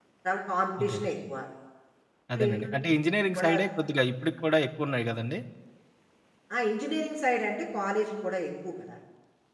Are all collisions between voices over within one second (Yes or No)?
Yes